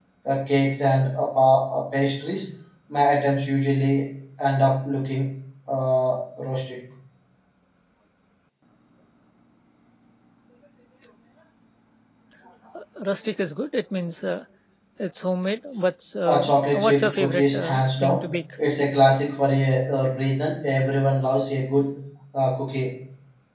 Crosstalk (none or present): present